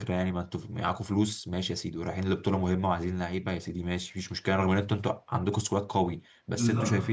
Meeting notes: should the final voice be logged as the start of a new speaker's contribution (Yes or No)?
No